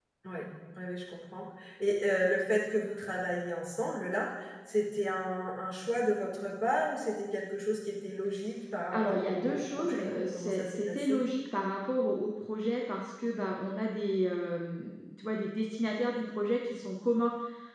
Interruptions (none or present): present